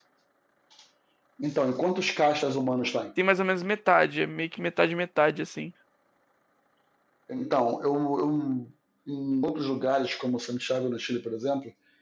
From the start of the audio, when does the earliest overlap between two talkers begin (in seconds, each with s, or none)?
none